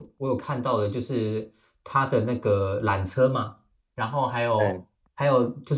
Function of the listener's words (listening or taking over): listening